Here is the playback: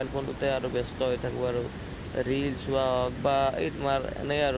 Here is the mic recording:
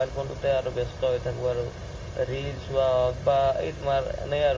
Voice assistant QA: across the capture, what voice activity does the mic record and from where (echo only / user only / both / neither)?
echo only